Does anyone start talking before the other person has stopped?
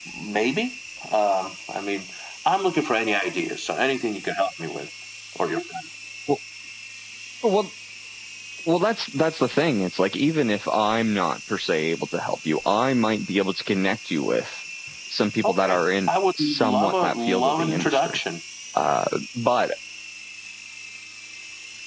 Yes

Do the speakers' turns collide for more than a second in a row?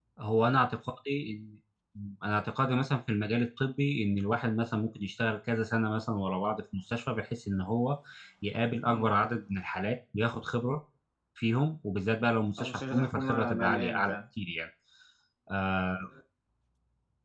Yes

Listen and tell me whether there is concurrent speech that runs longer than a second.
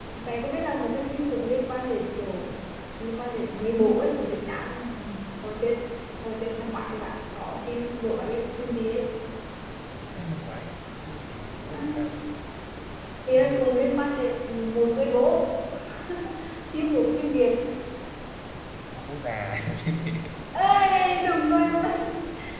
No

